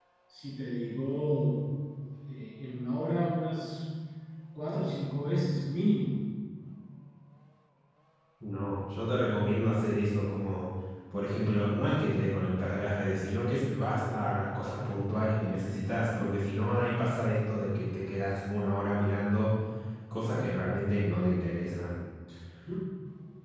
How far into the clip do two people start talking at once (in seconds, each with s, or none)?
none